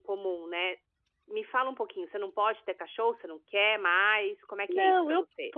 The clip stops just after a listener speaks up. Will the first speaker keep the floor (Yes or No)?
No